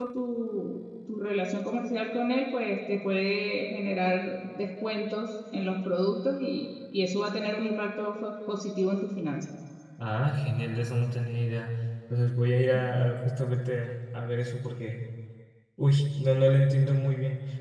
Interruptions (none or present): none